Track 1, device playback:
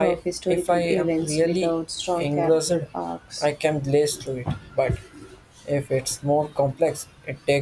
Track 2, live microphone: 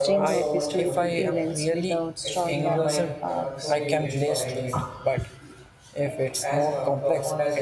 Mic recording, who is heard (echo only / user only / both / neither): both